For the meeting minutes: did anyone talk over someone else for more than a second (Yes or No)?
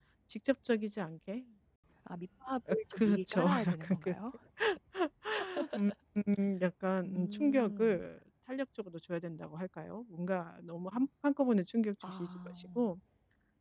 Yes